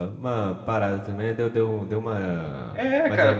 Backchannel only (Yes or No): No